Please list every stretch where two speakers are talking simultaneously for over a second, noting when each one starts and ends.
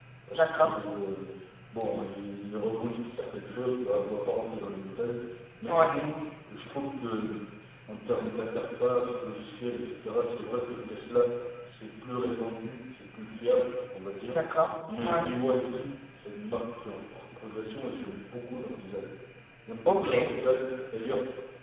none

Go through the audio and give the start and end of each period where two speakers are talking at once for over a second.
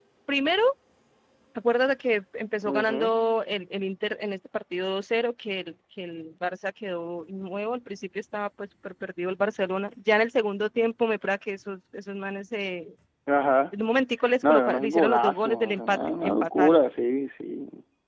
14.5-16.9

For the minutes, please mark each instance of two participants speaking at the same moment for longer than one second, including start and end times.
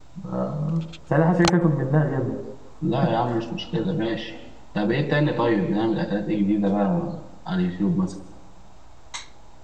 none

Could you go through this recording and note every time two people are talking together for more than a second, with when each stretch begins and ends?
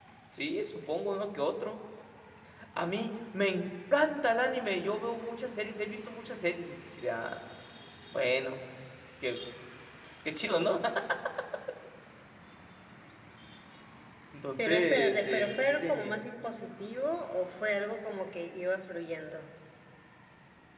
14.6-16.2

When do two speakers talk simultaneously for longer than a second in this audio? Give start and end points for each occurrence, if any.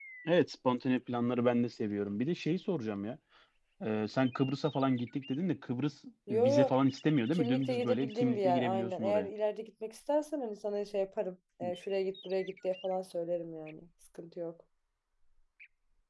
7.3-9.3

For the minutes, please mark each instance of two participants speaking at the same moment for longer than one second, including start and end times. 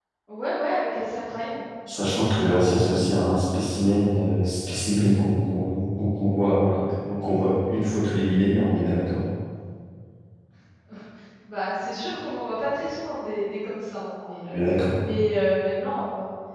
none

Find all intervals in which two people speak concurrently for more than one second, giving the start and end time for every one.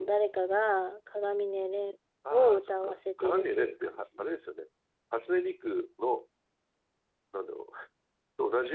2.3-4.0

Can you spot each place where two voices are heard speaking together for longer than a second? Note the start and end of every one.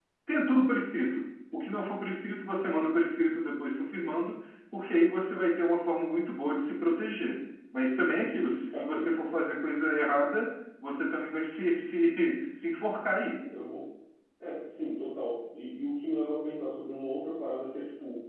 none

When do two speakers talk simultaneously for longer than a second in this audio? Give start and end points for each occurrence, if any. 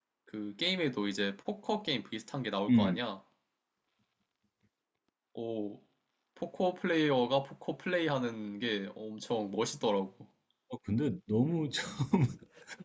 none

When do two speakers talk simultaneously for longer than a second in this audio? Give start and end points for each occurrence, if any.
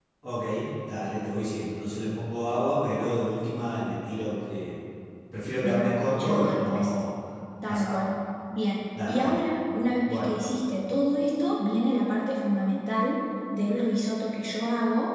5.6-6.9

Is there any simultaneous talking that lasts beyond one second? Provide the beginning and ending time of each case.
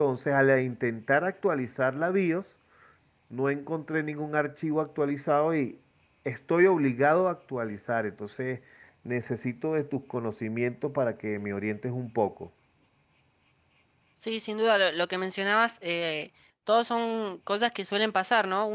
none

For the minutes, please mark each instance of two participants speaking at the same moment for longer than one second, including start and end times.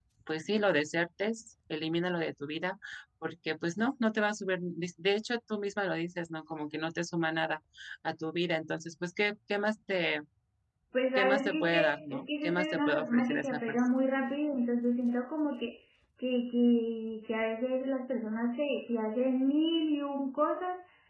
11.2-13.8

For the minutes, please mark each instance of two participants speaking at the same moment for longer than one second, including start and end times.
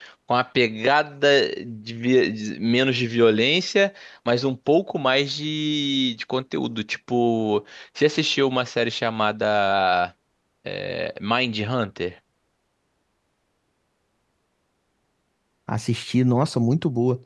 none

